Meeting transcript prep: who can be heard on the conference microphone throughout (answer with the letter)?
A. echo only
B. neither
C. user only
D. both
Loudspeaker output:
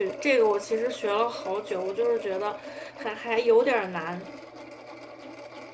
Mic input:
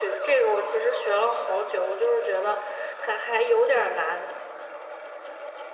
A